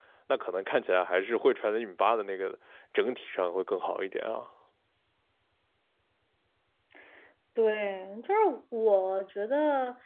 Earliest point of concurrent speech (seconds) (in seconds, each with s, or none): none